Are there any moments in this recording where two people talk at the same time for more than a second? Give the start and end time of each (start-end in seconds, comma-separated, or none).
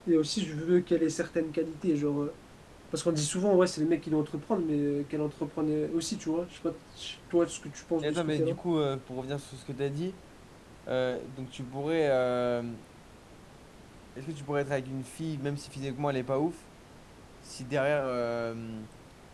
none